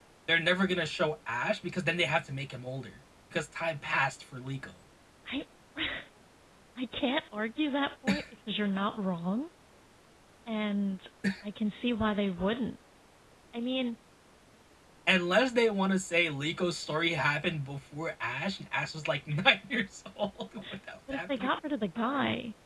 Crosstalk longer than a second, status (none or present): none